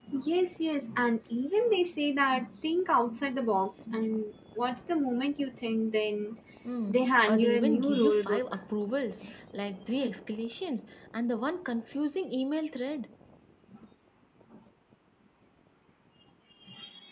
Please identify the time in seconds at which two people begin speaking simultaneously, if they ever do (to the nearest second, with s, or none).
7 s